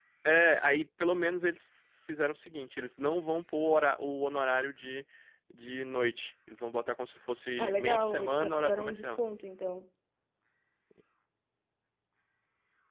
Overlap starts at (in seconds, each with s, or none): 7.6 s